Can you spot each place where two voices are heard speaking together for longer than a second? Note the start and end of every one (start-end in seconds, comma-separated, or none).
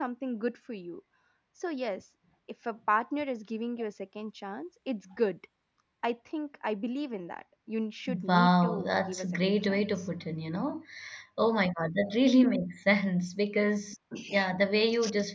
8.2-10.1